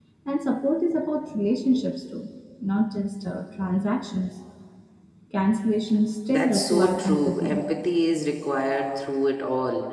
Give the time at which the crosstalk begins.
6.3 s

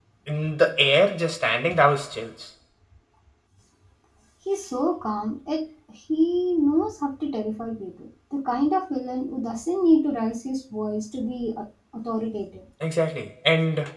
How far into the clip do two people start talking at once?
none

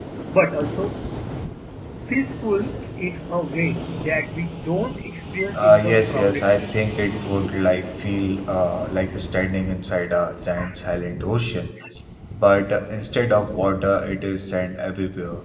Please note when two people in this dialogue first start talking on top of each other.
5.5 s

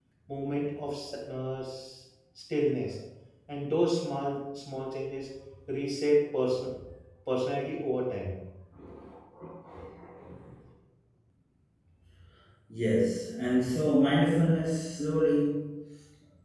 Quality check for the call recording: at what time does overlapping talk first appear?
none

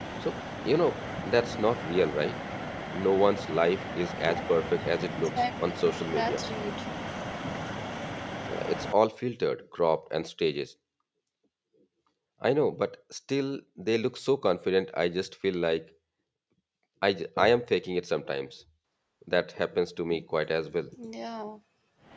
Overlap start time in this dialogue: 5.2 s

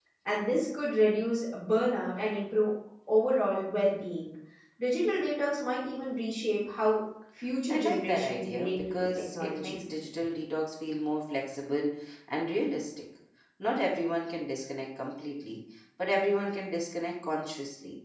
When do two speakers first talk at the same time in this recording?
7.7 s

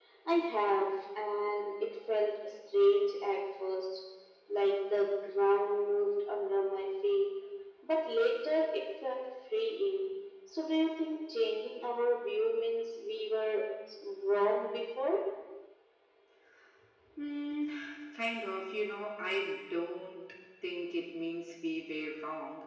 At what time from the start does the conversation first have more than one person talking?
none

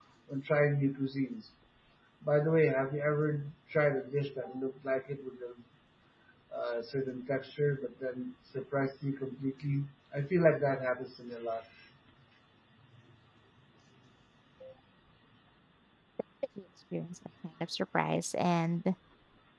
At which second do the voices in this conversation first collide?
none

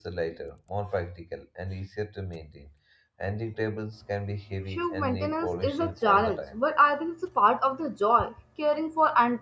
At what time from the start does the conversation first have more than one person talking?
4.7 s

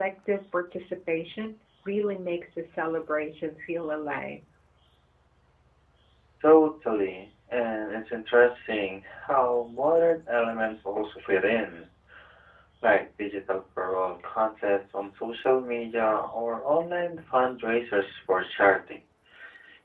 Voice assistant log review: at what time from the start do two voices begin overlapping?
none

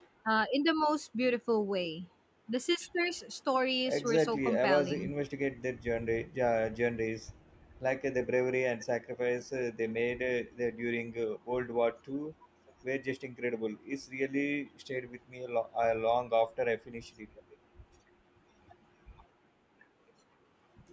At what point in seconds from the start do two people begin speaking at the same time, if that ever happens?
3.9 s

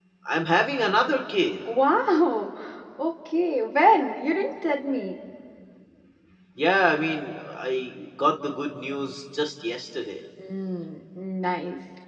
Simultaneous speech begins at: none

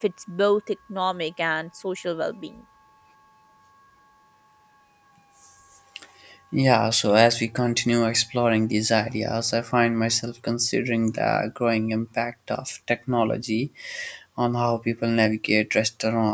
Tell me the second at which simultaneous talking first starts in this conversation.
none

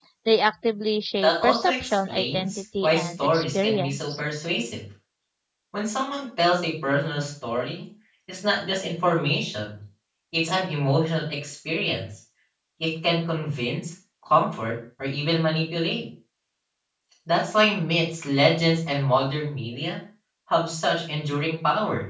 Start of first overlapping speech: 1.2 s

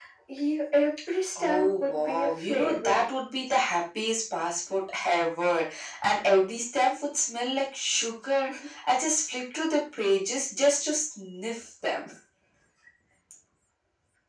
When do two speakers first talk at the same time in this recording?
1.3 s

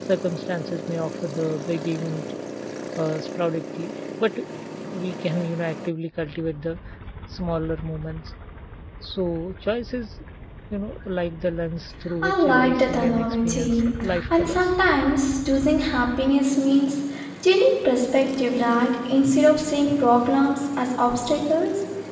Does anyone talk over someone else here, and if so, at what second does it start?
12.2 s

